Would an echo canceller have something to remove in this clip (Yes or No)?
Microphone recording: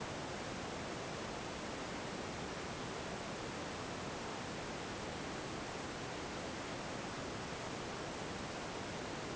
No